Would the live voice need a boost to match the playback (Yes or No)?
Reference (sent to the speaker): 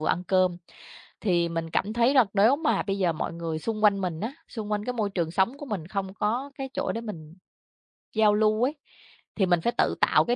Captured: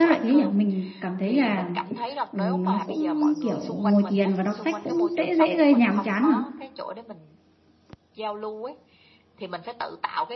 No